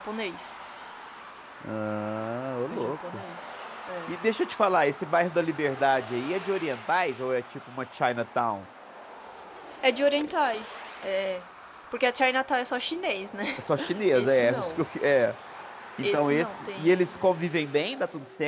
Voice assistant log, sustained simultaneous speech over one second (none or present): present